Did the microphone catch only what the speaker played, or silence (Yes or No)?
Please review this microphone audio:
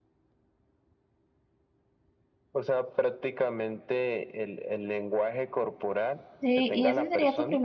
No